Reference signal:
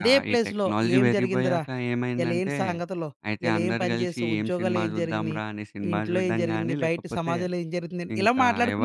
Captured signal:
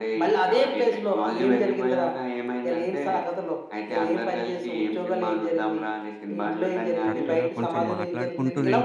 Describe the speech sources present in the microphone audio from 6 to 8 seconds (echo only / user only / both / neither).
both